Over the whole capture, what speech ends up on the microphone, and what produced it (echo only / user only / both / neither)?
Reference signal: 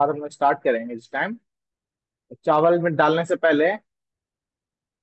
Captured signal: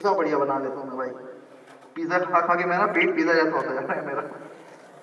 user only